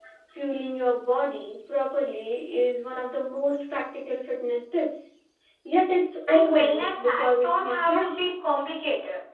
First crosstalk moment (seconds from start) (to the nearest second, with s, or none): 6 s